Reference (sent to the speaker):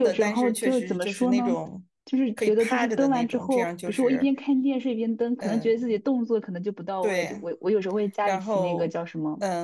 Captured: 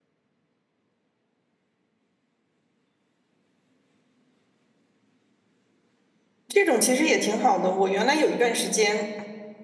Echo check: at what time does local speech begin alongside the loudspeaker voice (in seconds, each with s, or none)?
6.5 s